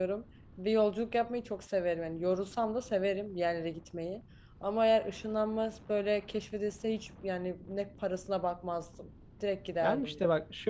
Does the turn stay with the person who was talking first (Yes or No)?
No